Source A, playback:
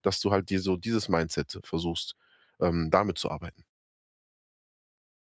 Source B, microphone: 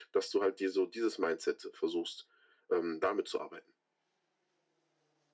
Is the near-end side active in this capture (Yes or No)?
No